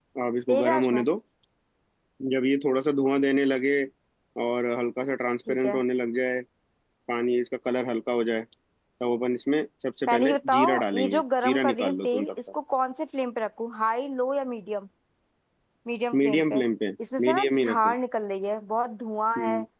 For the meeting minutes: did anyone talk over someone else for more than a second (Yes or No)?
Yes